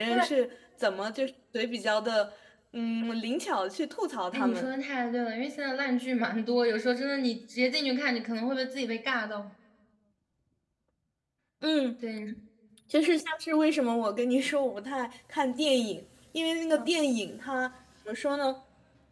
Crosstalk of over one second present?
No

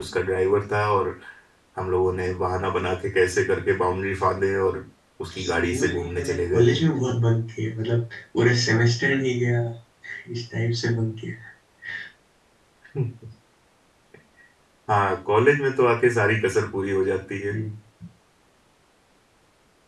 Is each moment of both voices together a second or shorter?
No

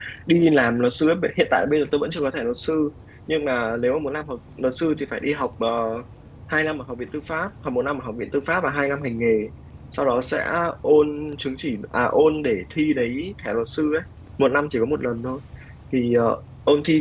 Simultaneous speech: No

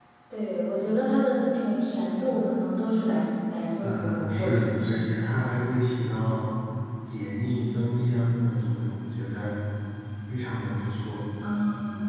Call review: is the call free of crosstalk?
No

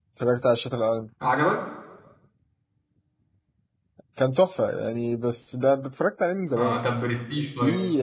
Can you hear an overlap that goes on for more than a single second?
No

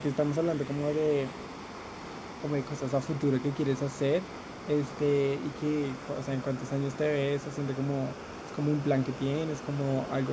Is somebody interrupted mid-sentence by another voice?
No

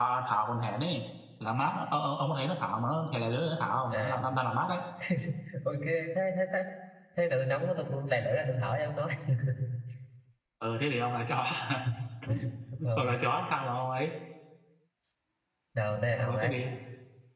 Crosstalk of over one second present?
No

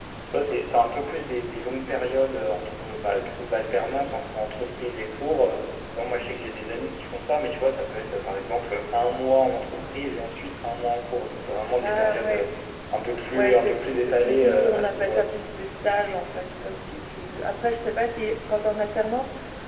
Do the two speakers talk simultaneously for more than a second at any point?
Yes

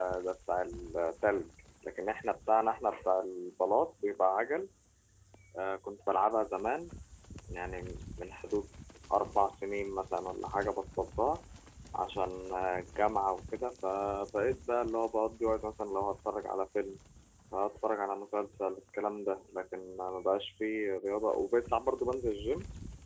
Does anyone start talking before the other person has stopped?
No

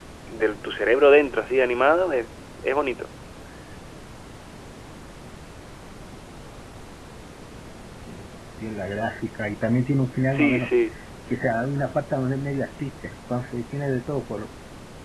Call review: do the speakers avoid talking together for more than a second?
Yes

